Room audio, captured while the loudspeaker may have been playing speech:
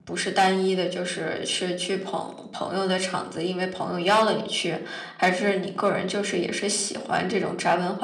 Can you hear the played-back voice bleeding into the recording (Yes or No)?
No